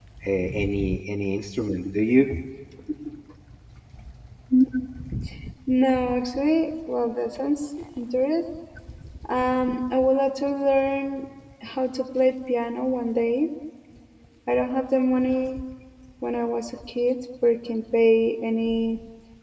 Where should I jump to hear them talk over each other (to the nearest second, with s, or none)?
none